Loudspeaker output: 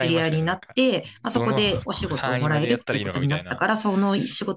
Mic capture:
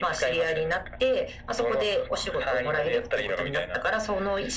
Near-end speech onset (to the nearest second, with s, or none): none